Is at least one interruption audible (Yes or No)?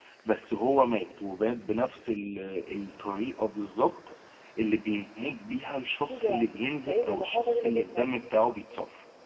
Yes